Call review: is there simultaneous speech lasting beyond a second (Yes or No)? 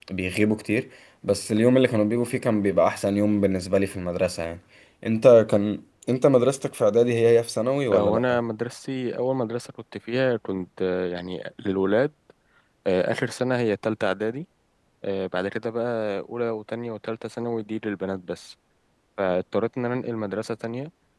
No